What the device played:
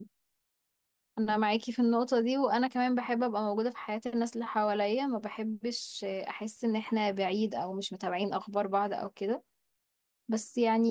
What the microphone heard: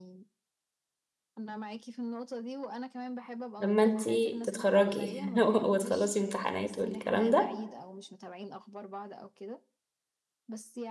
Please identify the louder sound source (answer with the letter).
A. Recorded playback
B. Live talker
B